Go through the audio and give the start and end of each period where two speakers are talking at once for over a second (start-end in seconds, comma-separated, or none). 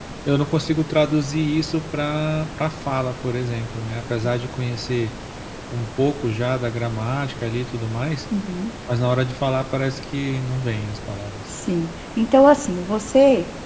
none